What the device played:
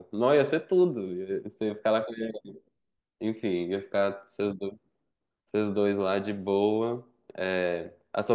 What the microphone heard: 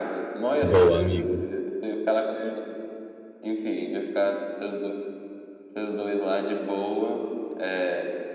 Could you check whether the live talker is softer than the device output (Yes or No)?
No